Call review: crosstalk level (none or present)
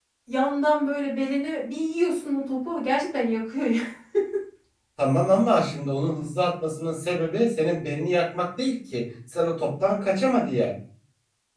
none